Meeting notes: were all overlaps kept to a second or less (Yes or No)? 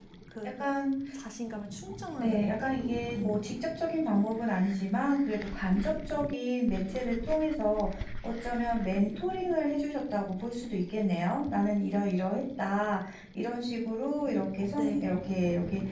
Yes